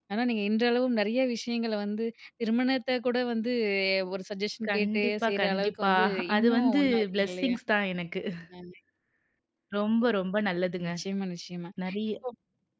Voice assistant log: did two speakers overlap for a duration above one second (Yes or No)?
Yes